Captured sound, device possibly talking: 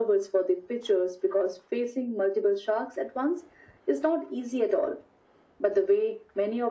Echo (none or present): present